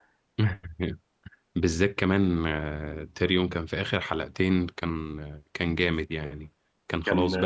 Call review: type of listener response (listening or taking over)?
listening